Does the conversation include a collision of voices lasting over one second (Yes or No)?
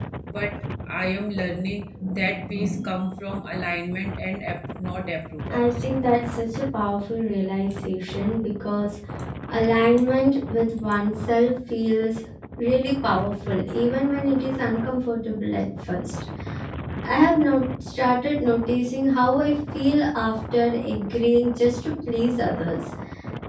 No